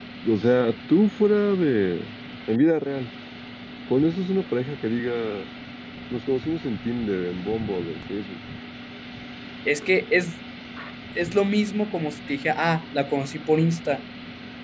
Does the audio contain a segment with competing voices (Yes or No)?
No